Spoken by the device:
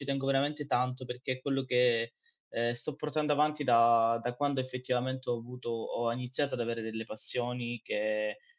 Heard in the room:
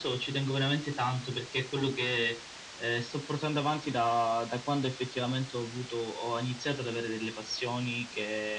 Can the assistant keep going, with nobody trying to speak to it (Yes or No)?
Yes